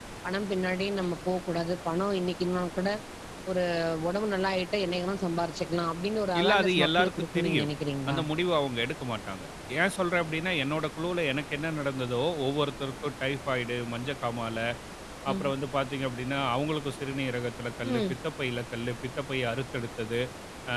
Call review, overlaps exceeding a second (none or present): present